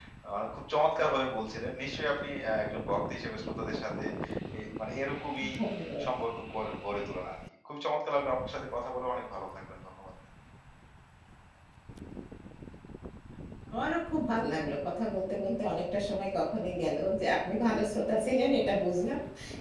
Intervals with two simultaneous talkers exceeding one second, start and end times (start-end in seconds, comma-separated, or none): none